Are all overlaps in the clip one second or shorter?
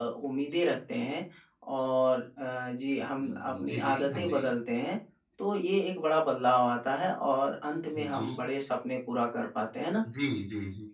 No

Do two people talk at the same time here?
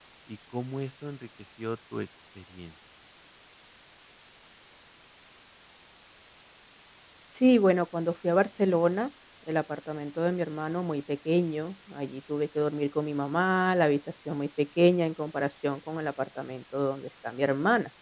No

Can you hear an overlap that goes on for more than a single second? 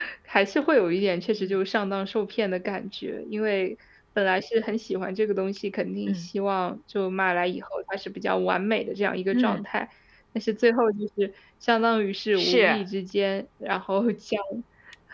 No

